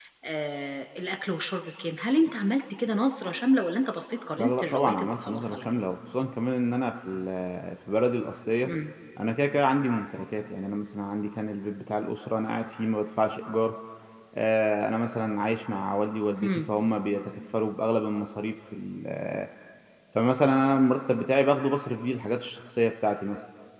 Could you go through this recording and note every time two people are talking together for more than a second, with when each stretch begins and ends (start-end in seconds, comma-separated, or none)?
4.4-5.7